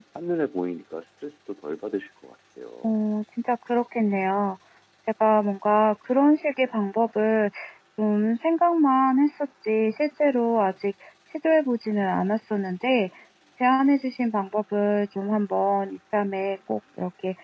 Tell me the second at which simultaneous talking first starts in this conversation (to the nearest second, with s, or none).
none